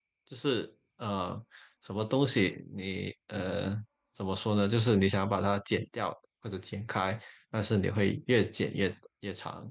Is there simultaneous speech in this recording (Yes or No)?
No